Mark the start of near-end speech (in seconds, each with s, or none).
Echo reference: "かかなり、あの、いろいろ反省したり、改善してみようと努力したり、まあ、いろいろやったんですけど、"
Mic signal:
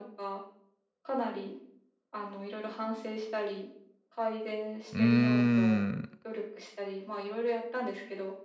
4.9 s